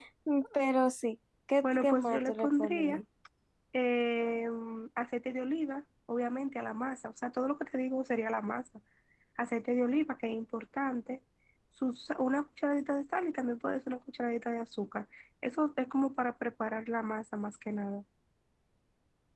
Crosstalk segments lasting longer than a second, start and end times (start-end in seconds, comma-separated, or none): 1.6-3.0